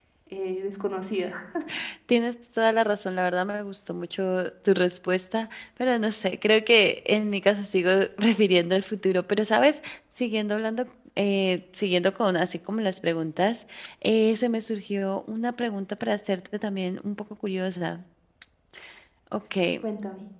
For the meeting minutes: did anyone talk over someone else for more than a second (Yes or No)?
No